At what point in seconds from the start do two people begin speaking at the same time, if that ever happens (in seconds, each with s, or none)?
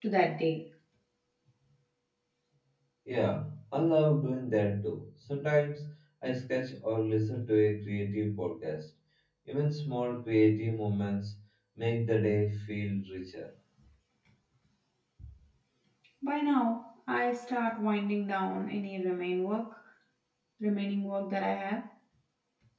none